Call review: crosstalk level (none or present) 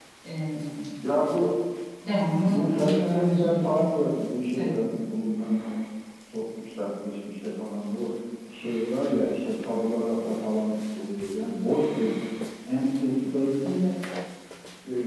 present